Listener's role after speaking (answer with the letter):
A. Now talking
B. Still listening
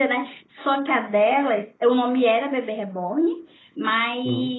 B